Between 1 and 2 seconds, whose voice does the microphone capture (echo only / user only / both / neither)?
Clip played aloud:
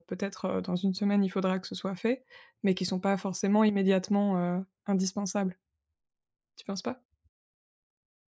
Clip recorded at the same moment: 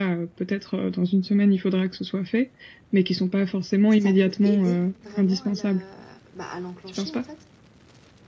echo only